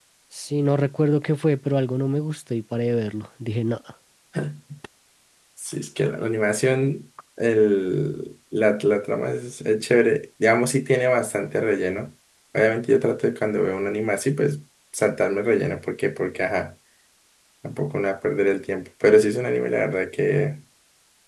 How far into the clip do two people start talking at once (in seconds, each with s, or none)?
none